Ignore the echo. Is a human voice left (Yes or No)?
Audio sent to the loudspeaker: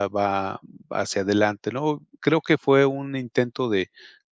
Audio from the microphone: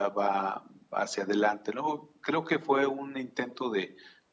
No